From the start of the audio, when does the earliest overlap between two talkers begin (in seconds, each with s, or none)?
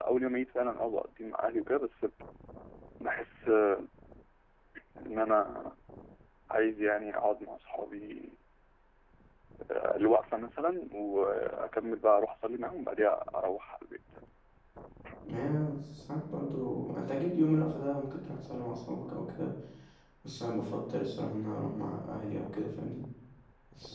none